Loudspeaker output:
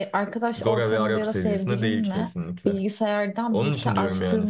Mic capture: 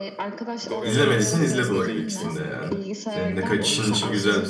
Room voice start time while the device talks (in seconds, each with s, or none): 0.8 s